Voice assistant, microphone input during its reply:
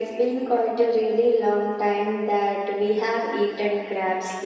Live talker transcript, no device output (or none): none